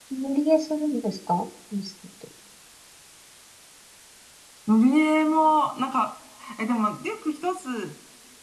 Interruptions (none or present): none